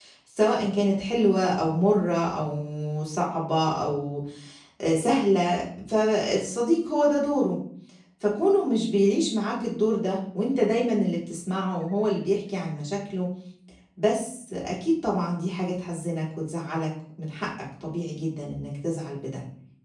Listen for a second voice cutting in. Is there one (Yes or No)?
No